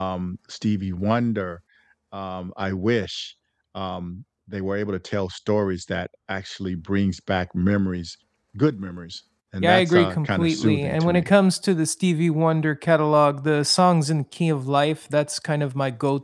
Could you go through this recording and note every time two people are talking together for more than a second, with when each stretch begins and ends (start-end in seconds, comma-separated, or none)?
9.6-11.3